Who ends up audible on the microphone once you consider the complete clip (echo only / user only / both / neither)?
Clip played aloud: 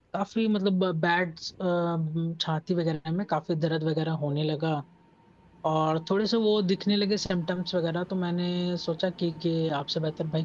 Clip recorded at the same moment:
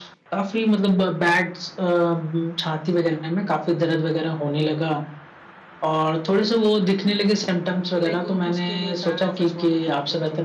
both